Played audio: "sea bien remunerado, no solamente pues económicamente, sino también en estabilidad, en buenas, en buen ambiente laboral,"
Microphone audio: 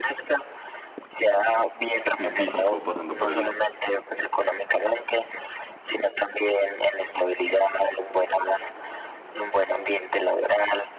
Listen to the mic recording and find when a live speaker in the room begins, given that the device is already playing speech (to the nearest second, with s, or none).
2 s